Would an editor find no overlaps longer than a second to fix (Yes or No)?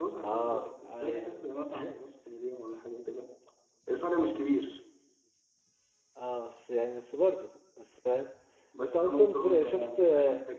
No